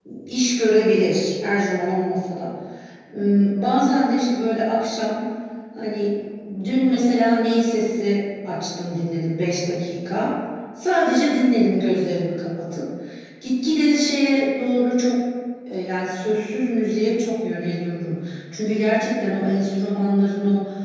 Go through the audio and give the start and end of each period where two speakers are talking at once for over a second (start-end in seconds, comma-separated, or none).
none